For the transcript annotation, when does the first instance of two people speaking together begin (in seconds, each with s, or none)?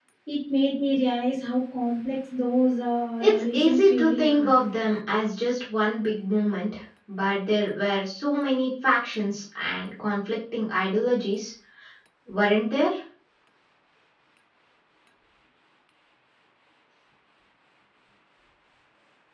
3.2 s